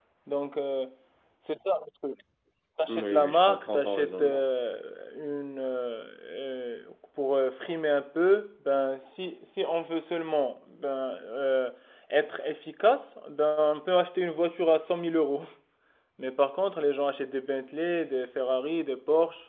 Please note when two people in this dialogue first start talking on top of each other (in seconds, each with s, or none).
2.9 s